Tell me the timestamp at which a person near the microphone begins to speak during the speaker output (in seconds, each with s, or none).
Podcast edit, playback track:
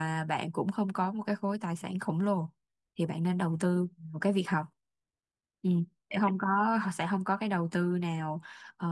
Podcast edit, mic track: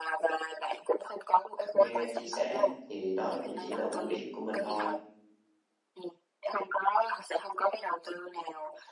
1.7 s